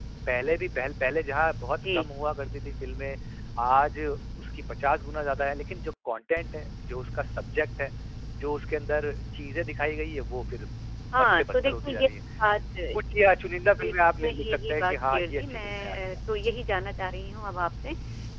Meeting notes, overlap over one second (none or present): present